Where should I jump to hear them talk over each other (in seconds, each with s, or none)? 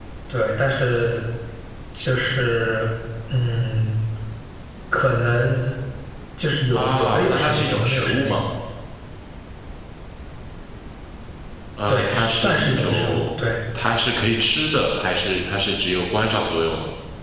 6.7 s